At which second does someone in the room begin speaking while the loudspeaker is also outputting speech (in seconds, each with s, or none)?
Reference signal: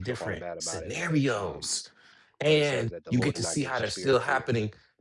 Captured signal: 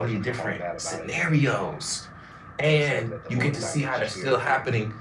none